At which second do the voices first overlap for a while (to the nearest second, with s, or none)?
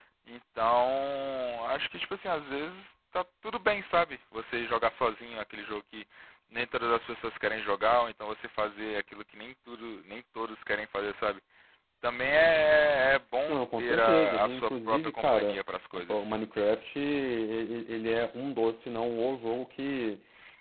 13 s